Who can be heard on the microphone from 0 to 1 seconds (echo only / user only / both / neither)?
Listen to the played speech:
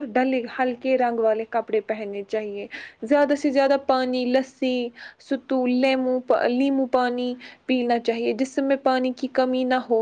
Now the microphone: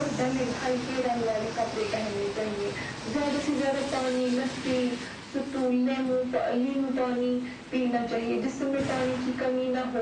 echo only